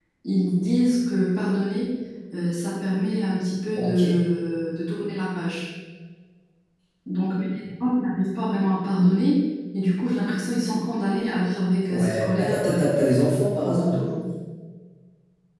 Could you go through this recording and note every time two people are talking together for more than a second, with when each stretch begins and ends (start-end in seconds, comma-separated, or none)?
11.9-13.9